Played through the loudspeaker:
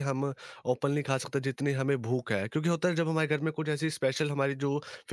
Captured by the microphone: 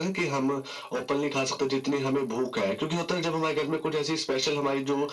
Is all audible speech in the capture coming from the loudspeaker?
Yes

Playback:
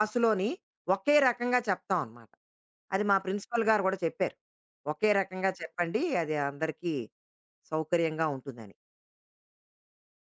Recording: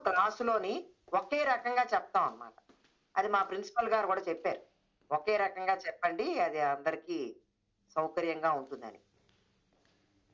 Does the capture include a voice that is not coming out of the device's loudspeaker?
No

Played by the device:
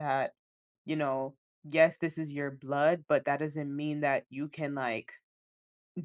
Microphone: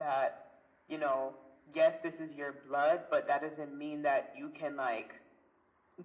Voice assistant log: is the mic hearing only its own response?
Yes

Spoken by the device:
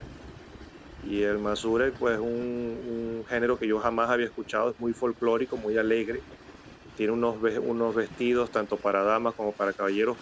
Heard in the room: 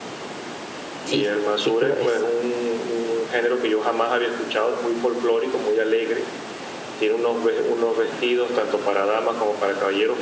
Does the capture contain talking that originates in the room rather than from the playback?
Yes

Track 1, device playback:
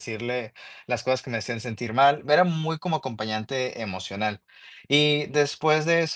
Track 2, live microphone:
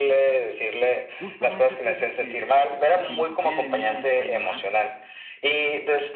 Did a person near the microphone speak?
Yes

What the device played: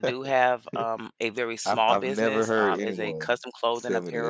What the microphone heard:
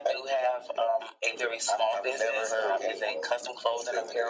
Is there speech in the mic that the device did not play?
No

